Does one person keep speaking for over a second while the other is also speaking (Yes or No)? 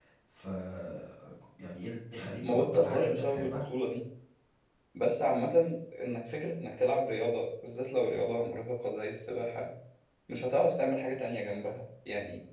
Yes